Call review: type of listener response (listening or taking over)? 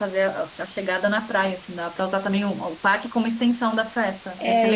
taking over